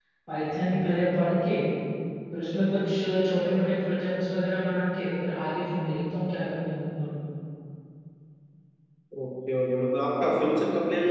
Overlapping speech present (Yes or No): No